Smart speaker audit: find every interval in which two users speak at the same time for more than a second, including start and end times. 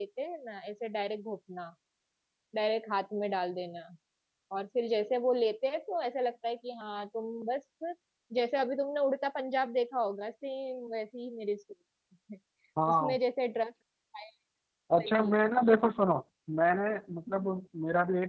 none

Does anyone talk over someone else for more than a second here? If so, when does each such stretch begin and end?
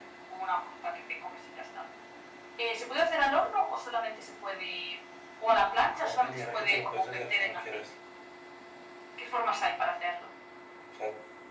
6.0-7.8

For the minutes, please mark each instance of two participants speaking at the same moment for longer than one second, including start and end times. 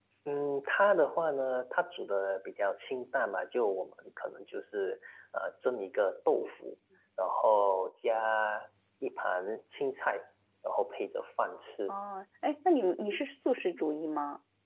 none

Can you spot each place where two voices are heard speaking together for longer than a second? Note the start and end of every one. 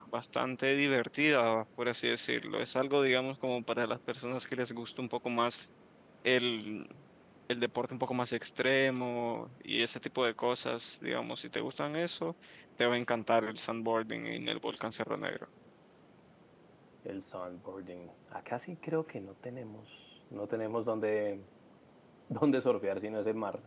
none

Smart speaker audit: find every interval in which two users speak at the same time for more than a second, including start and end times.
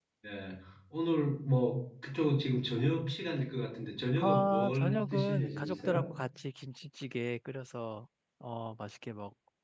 4.2-6.0

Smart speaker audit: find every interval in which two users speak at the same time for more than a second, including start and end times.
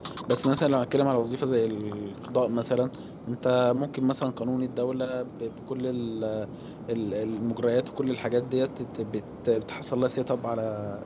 none

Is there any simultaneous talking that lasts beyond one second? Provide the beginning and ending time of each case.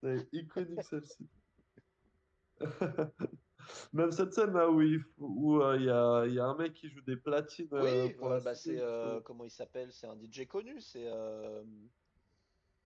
7.8-9.2

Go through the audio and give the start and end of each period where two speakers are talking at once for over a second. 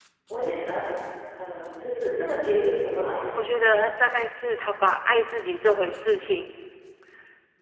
none

